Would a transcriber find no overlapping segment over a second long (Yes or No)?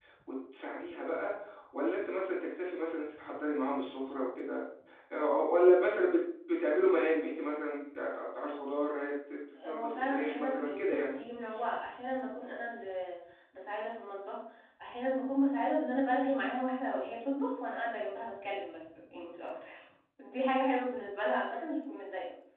No